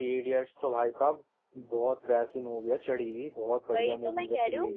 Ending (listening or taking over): taking over